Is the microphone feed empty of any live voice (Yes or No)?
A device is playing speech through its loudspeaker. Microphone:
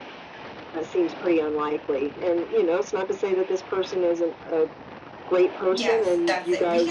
No